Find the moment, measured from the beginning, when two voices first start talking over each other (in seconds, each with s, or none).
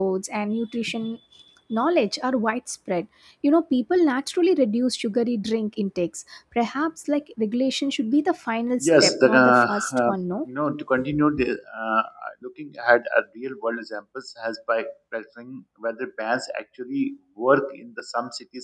8.8 s